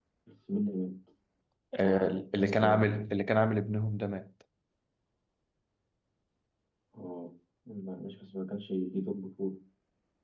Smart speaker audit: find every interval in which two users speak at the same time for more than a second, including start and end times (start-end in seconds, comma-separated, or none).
1.8-3.0